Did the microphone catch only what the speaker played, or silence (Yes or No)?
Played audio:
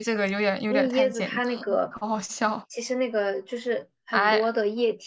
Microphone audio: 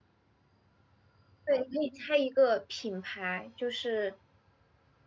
No